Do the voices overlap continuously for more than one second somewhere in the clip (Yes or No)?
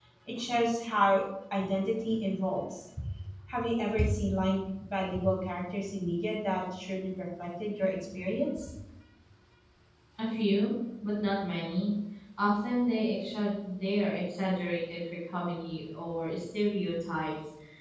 No